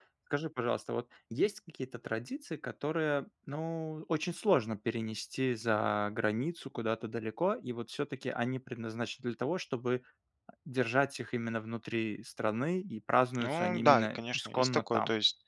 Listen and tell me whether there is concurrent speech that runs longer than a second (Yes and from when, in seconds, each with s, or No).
Yes, from 13.4 s